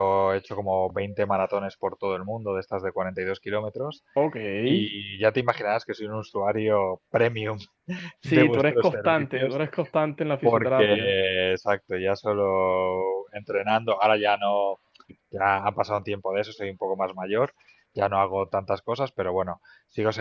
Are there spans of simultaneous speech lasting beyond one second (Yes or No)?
Yes